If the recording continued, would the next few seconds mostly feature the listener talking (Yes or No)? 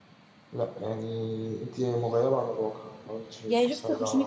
Yes